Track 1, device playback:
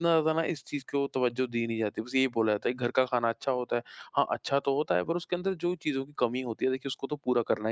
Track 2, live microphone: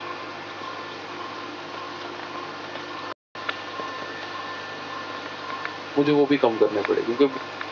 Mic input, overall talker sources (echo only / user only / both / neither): user only